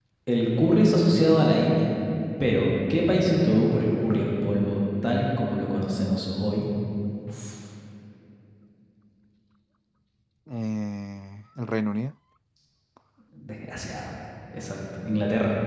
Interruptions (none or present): none